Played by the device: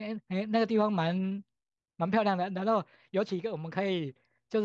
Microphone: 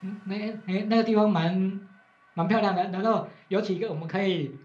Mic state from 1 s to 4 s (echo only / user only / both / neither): echo only